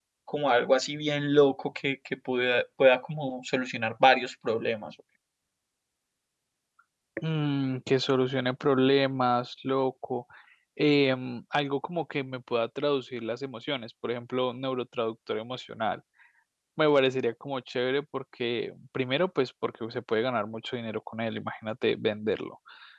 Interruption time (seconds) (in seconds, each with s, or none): none